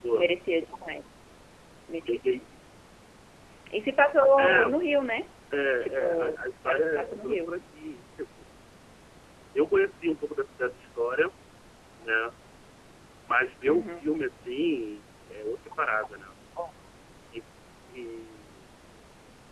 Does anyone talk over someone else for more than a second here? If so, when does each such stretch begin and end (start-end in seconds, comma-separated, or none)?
6.0-7.5